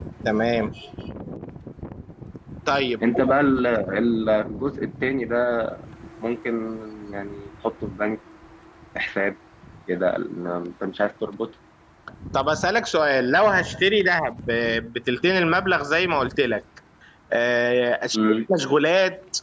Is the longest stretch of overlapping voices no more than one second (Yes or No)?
Yes